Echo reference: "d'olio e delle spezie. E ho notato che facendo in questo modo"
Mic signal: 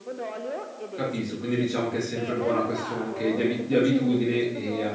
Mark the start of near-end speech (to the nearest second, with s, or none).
1 s